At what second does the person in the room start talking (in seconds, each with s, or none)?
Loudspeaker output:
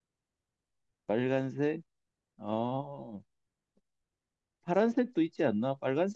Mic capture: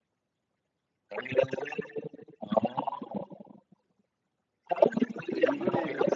5.3 s